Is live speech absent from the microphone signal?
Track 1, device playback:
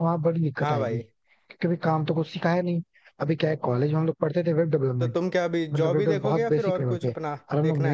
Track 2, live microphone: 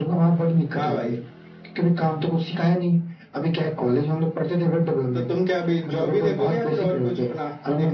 Yes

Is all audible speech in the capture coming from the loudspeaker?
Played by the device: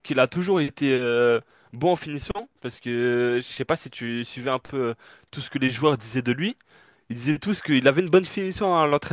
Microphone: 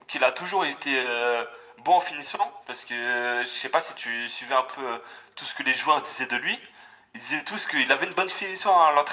Yes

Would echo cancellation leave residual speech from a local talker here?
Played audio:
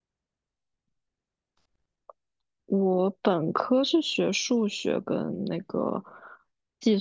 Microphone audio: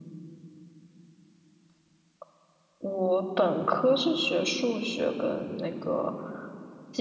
No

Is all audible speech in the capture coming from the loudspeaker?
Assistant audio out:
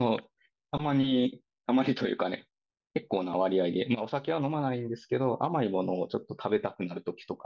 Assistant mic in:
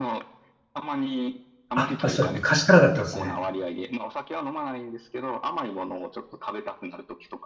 No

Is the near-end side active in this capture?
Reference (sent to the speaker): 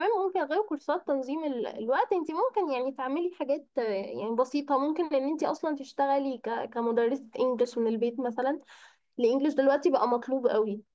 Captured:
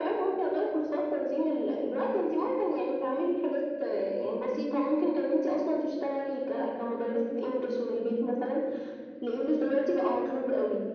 No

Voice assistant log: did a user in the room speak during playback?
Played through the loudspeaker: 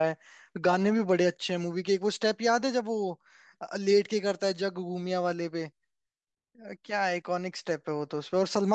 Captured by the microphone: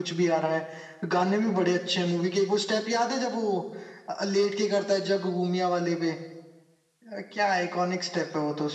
No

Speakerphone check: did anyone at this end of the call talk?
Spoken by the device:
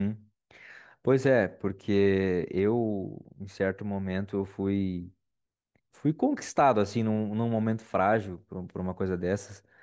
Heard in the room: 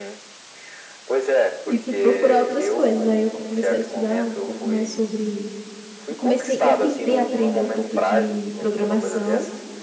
Yes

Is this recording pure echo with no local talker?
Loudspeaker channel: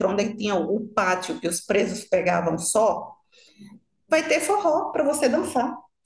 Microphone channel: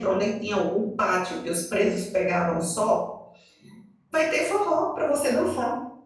Yes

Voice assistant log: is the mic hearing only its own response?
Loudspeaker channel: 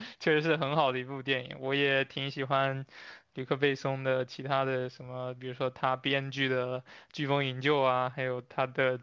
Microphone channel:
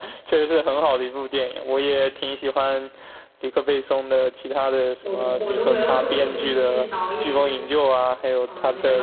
No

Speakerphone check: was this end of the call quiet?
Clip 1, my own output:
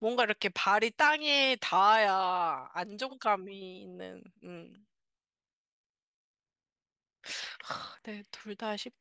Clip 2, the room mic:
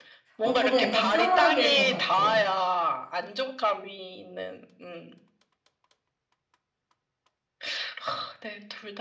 No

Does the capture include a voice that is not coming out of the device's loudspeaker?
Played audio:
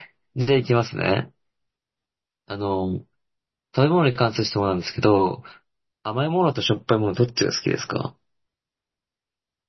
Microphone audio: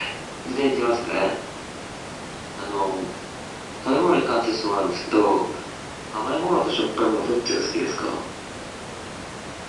No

